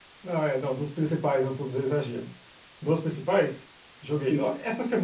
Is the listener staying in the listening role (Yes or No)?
Yes